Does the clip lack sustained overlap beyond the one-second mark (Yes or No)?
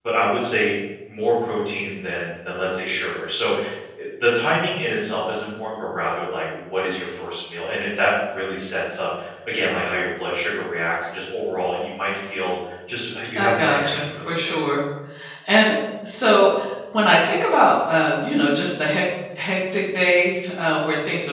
No